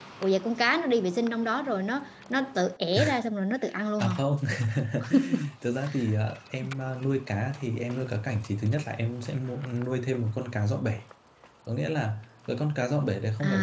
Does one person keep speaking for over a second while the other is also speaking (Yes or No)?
No